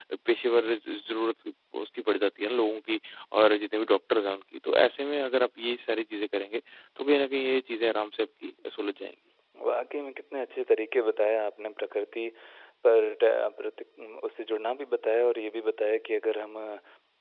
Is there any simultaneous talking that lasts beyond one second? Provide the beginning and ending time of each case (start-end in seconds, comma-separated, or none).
none